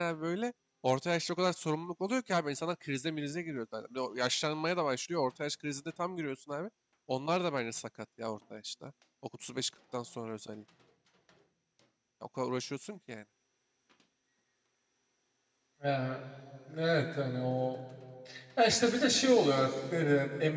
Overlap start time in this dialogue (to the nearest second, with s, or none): none